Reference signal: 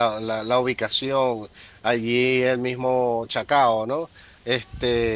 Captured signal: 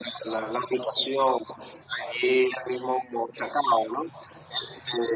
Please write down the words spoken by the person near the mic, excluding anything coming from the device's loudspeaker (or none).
none